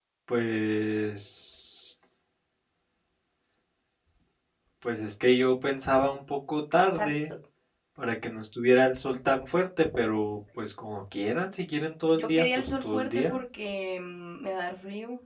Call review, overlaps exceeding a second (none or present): present